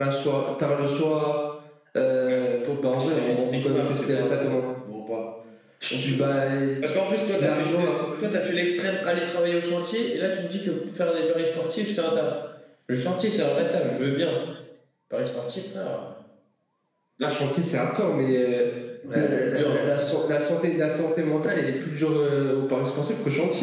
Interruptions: present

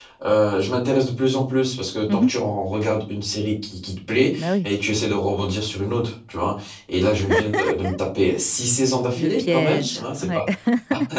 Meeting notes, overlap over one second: present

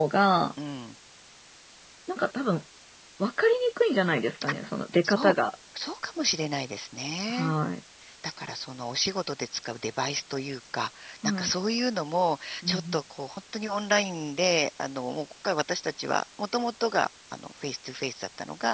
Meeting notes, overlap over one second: none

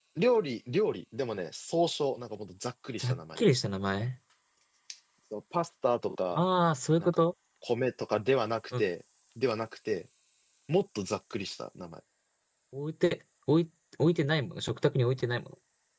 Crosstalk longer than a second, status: none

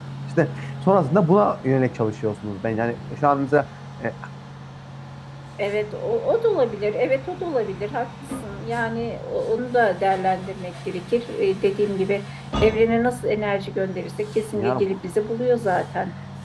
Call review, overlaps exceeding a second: none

